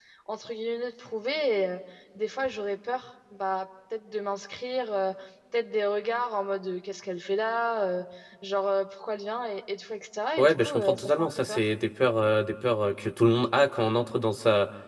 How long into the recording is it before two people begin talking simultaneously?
10.4 s

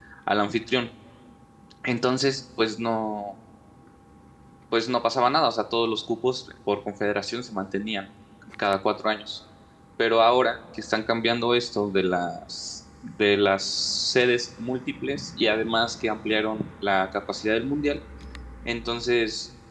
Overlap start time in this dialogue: none

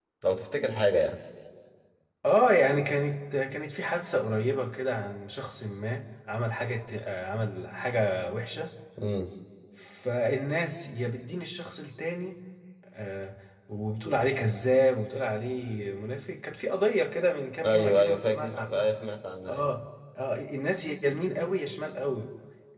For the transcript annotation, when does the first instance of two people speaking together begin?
17.6 s

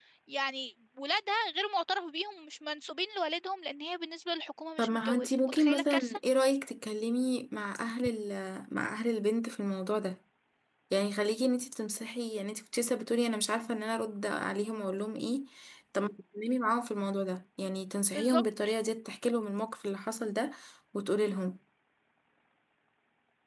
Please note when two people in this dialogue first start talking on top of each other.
4.8 s

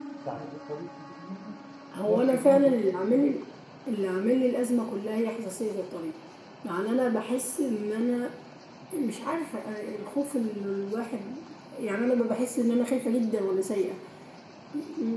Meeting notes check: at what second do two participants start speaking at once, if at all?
1.9 s

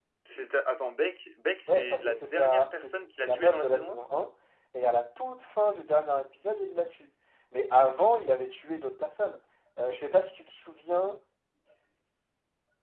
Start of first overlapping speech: 1.7 s

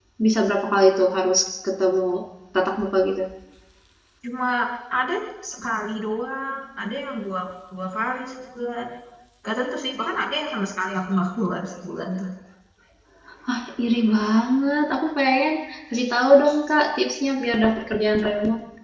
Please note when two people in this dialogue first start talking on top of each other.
none

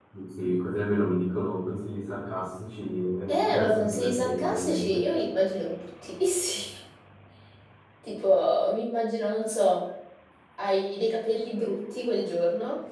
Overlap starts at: 3.3 s

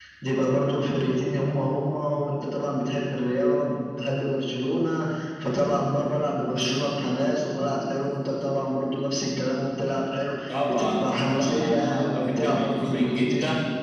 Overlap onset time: 10.5 s

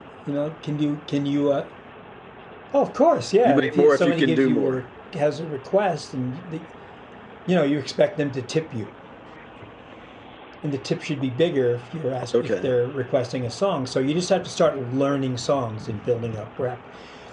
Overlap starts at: 3.4 s

